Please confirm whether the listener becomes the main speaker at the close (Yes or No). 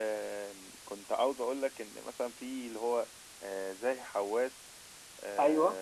No